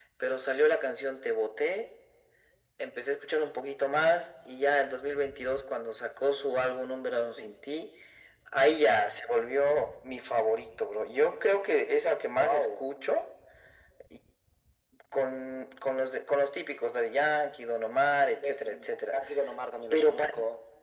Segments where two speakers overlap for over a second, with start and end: none

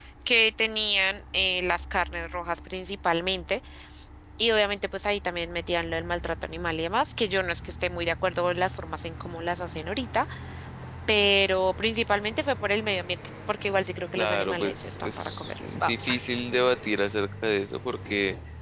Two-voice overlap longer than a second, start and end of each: 14.2-15.9

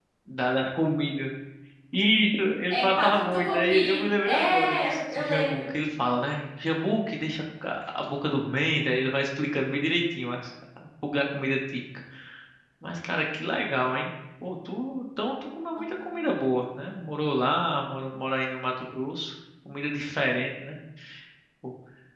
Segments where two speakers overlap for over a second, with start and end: 2.7-5.7

